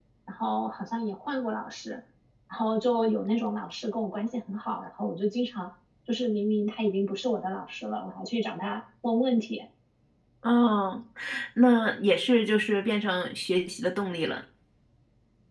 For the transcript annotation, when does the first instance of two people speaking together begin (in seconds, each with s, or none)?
none